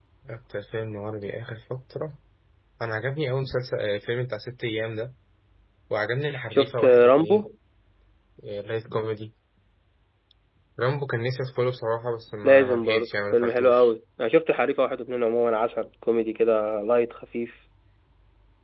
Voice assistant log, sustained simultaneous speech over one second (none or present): present